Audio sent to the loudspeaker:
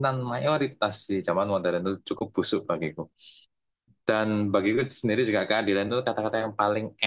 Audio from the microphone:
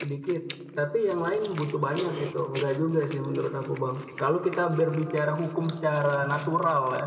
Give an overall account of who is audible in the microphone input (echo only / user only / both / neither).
user only